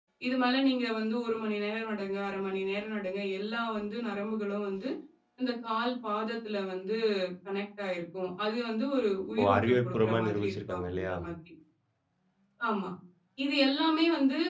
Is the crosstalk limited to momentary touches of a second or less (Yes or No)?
No